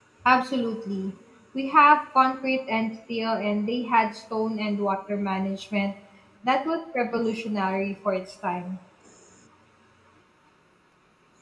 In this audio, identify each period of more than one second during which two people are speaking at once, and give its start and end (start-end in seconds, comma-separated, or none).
none